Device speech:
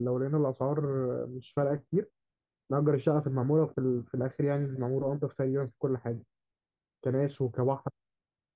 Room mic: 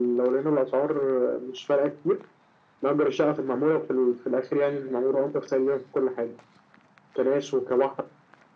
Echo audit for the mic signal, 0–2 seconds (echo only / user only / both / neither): echo only